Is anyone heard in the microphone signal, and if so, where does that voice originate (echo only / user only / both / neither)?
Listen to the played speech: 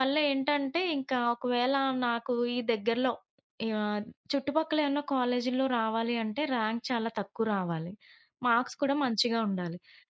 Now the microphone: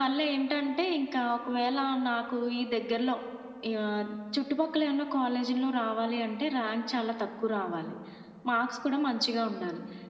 echo only